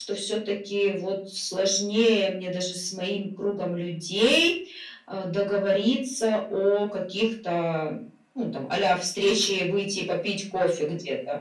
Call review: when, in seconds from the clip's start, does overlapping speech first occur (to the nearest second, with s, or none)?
none